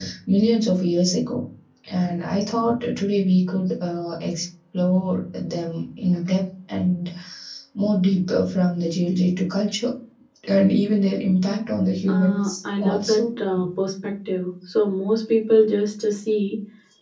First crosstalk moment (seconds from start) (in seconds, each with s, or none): 12.1 s